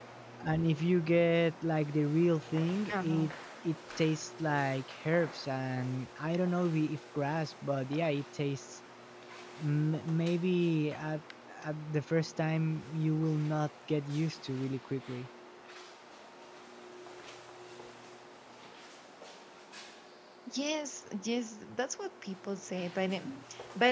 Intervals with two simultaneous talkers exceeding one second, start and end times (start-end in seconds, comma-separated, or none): none